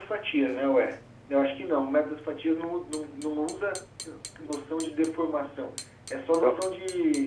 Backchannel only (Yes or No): Yes